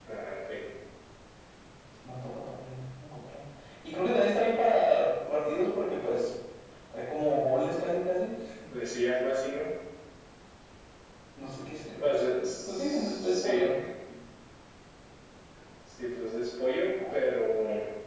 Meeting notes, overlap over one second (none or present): present